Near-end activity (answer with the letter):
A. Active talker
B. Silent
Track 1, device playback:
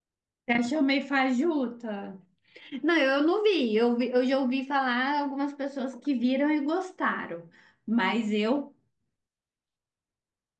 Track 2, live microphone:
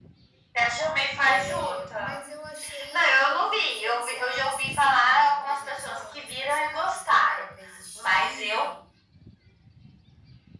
A